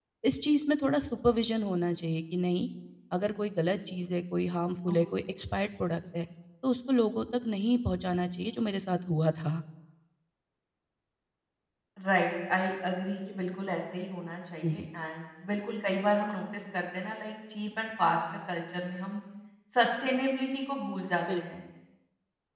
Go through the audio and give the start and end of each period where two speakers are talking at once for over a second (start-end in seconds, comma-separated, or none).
none